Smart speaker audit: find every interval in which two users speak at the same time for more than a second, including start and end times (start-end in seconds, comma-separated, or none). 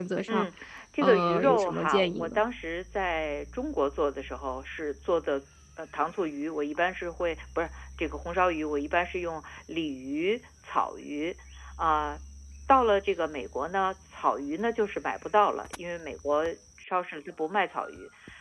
1.0-2.4